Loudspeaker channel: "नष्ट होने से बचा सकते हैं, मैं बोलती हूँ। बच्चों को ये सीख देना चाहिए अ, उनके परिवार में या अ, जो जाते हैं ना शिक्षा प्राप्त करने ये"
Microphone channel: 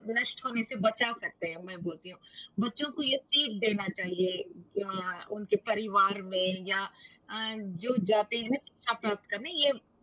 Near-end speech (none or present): none